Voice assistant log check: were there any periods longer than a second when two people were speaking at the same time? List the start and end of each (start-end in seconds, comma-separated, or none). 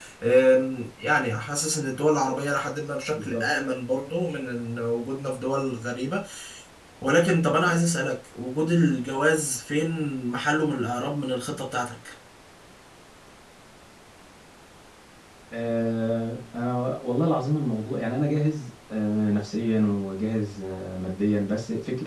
none